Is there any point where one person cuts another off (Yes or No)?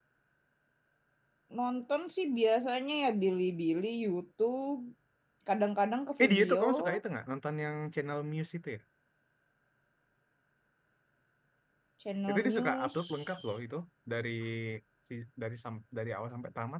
Yes